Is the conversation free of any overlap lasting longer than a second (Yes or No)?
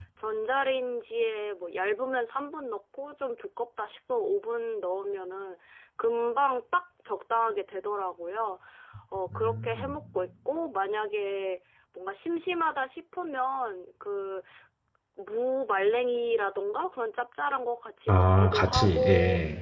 No